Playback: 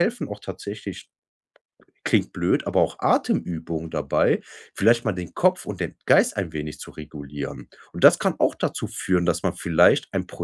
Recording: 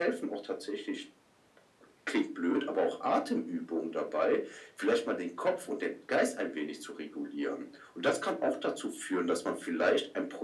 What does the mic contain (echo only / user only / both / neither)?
echo only